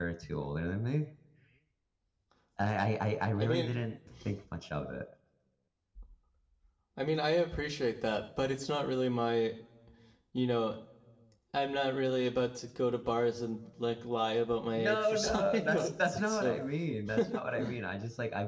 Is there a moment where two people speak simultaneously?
Yes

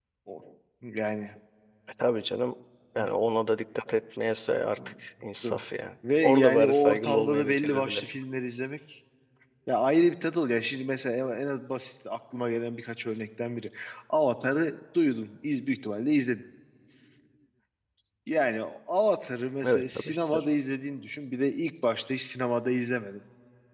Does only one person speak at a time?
No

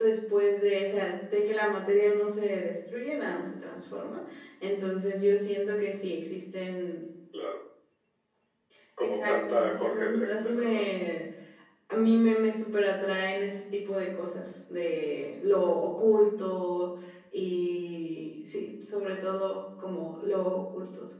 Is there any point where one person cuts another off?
Yes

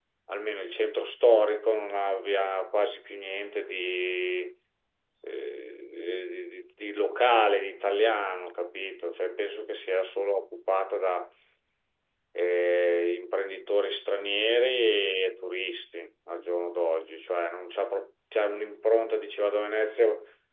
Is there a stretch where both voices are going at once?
No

